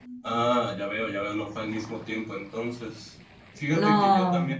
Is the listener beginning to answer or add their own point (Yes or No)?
No